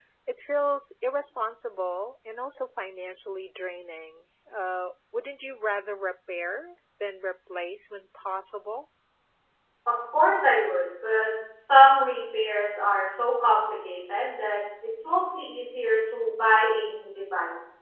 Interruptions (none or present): none